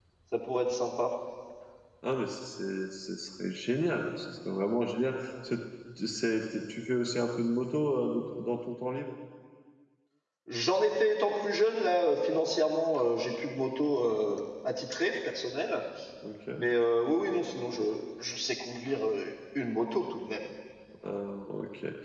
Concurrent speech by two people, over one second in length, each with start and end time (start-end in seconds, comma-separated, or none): none